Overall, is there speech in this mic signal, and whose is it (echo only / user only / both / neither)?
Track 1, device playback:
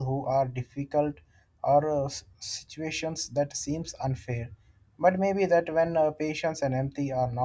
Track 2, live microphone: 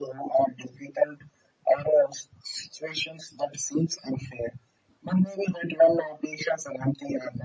echo only